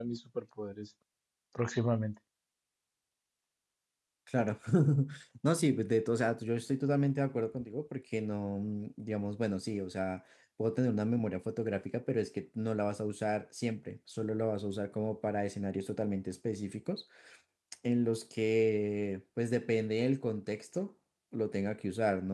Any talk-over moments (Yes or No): No